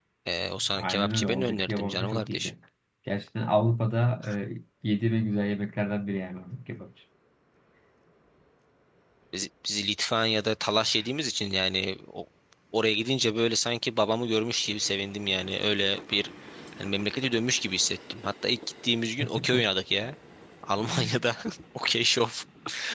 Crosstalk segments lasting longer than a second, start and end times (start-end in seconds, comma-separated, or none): 0.8-2.5